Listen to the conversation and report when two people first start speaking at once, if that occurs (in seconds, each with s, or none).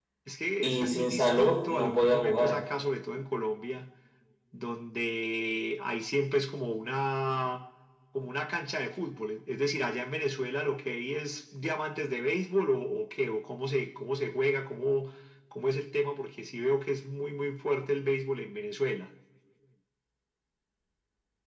0.6 s